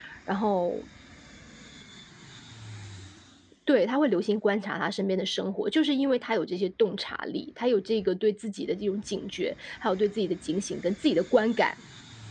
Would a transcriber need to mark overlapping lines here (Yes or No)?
No